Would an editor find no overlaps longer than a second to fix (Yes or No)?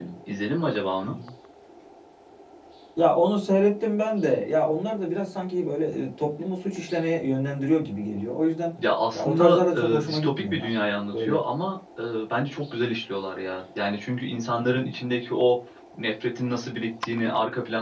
No